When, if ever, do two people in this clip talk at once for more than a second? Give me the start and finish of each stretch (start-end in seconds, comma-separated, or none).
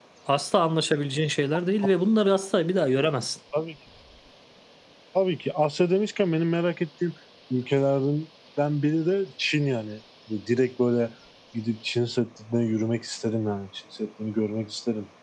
none